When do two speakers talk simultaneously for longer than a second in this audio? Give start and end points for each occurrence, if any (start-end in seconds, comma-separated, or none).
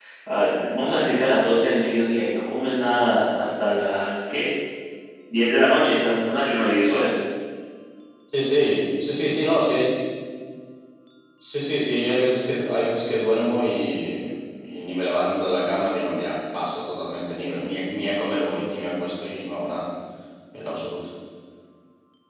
none